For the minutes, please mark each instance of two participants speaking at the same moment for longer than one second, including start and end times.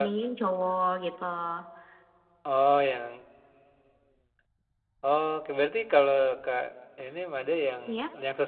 none

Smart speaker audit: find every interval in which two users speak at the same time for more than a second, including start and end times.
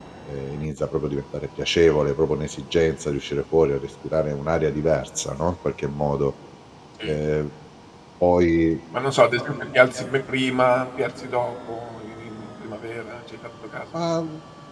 none

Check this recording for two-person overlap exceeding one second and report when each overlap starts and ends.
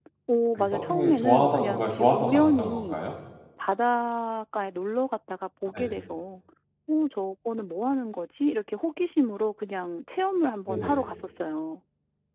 0.6-3.0

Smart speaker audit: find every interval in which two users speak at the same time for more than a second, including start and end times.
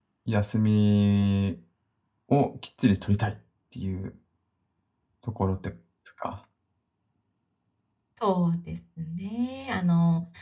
none

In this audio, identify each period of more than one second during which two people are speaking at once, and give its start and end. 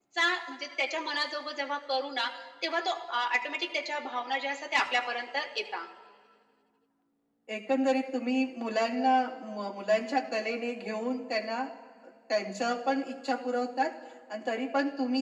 none

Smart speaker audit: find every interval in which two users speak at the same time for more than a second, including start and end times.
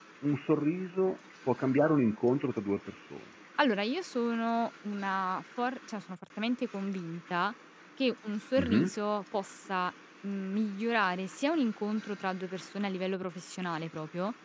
none

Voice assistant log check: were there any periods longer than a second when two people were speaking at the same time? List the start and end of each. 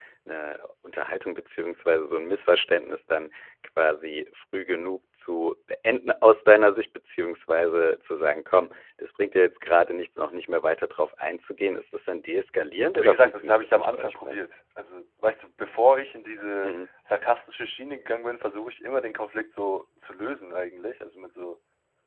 12.9-14.4

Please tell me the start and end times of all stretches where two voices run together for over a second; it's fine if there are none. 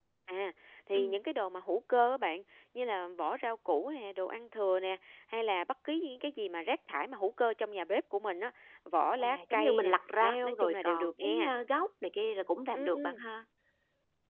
9.2-11.5

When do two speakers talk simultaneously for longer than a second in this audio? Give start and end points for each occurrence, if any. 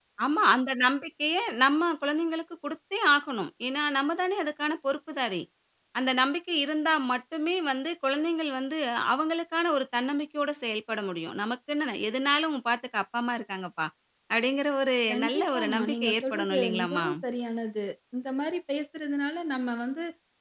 15.1-17.1

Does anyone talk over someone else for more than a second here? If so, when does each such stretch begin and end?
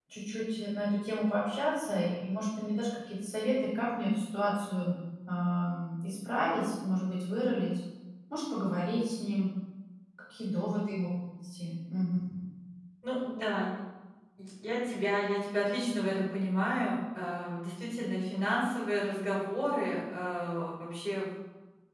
none

